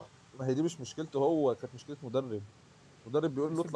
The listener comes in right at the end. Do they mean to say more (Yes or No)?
No